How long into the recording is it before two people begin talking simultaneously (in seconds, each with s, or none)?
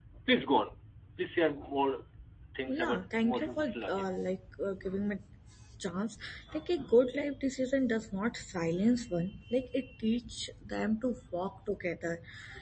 2.7 s